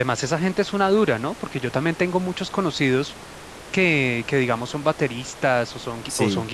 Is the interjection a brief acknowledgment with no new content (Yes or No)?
Yes